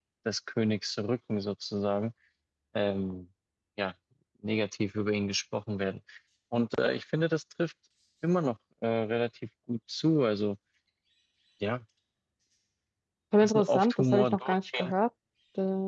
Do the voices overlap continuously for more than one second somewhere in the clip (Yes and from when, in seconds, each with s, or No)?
Yes, from 13.4 s